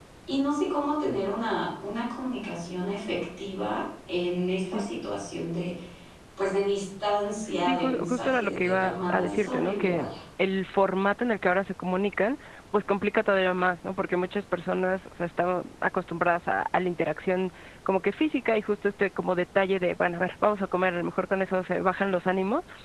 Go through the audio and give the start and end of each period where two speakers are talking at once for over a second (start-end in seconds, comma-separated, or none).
7.6-10.1